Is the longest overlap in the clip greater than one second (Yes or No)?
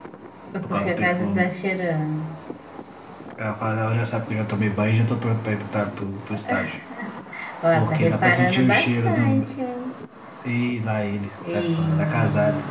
Yes